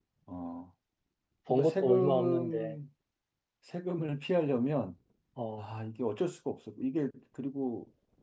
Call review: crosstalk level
present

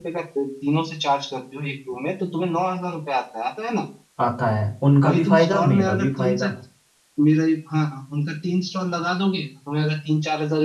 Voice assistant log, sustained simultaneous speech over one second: present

